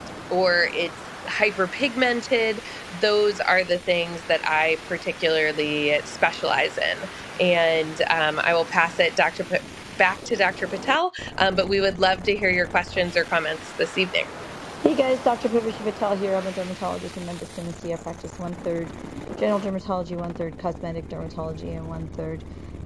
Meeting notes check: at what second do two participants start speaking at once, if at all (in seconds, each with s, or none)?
none